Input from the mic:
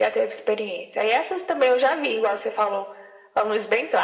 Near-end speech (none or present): none